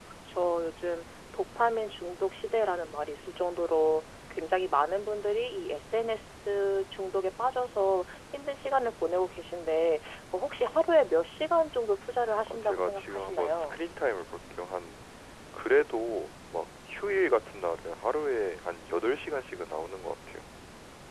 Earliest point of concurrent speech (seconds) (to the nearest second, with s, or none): 12 s